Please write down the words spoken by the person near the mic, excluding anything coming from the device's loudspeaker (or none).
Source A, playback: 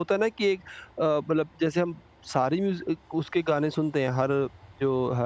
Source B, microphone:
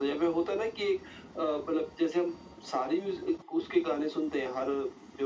none